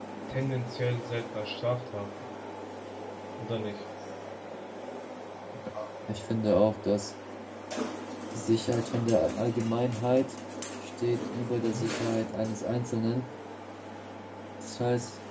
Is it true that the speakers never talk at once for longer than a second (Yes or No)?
Yes